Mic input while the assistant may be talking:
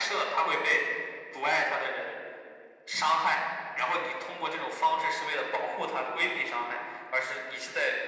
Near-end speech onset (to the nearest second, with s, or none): none